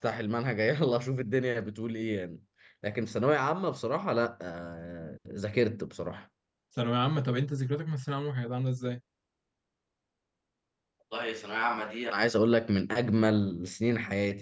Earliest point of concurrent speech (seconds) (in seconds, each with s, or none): none